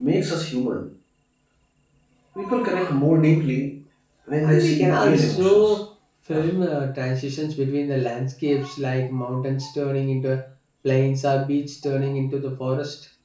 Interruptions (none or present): present